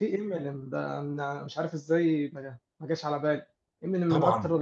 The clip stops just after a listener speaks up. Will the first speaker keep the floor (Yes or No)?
Yes